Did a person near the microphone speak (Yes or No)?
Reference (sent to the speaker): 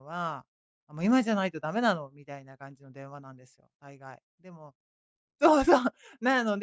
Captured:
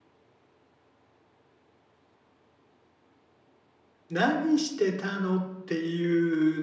Yes